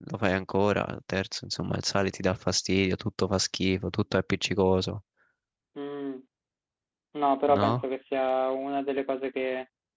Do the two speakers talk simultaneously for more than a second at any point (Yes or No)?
No